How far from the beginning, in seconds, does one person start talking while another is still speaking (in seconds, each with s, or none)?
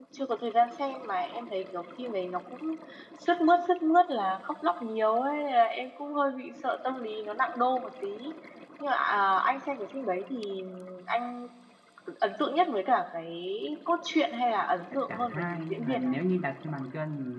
14.9 s